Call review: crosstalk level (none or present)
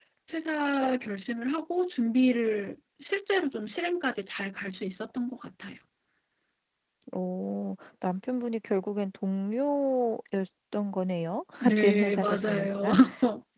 present